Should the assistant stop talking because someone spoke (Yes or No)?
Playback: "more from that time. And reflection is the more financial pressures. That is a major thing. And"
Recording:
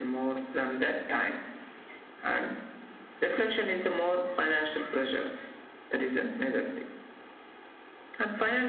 No